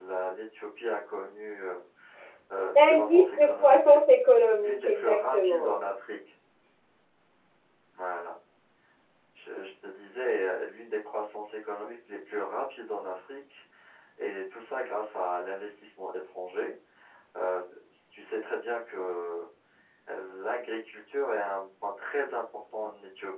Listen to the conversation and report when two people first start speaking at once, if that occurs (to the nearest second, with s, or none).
3 s